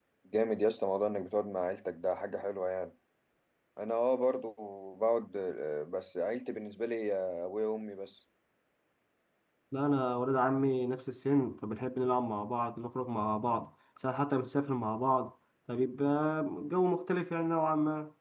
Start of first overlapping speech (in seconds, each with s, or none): none